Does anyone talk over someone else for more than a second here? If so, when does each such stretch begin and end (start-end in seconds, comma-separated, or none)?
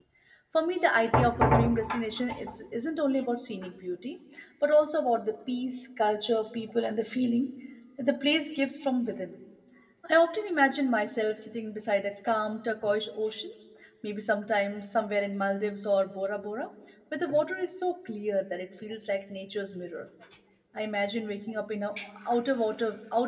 none